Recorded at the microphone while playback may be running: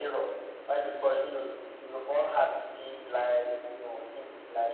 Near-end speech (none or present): none